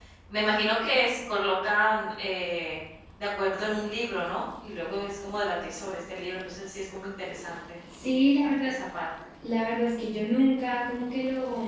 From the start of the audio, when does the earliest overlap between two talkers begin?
none

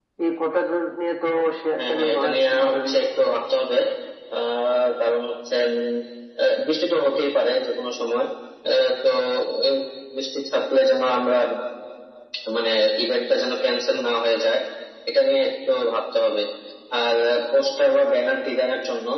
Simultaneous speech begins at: 1.8 s

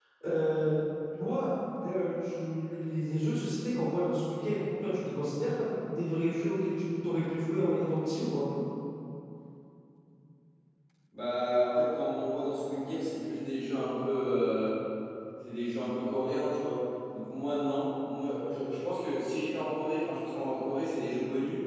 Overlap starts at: none

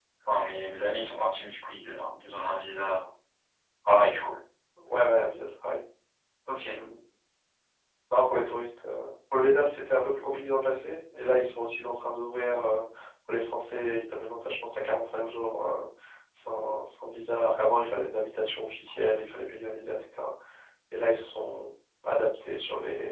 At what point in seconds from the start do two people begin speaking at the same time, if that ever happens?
none

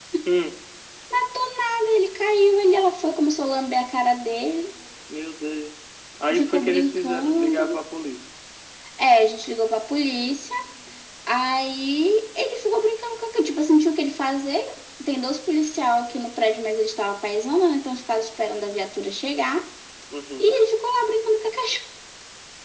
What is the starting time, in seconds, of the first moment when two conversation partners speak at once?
6.3 s

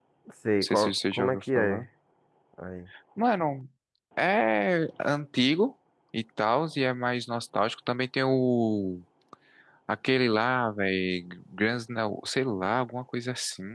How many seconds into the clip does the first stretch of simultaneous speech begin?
0.6 s

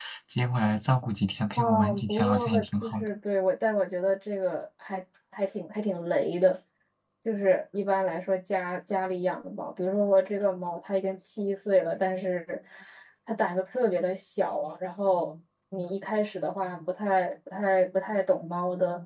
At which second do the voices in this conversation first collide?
1.6 s

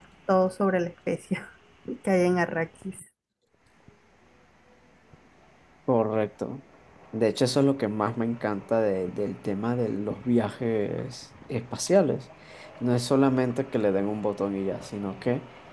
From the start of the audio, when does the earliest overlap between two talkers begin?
none

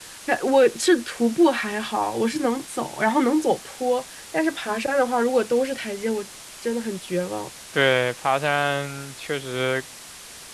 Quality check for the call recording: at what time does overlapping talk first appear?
none

